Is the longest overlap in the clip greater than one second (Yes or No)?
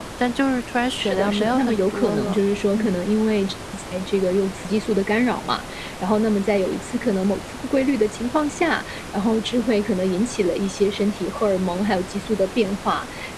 Yes